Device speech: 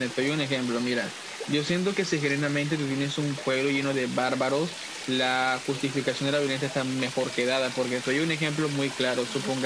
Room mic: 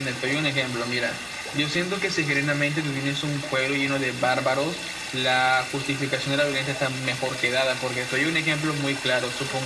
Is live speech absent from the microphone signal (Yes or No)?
Yes